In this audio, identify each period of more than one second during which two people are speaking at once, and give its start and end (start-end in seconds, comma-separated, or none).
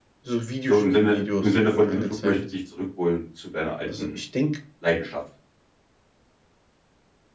0.7-2.4